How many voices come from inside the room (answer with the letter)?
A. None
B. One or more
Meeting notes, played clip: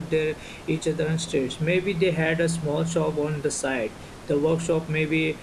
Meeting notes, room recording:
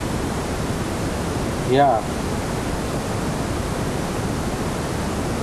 B